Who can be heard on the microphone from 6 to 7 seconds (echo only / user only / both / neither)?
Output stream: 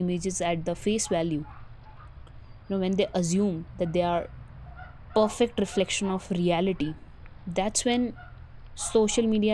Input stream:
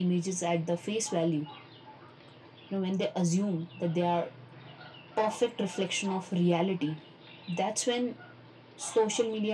echo only